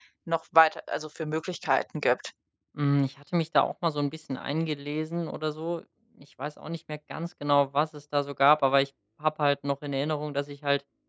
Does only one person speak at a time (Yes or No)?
Yes